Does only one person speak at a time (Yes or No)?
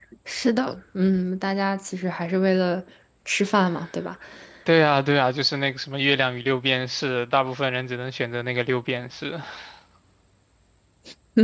Yes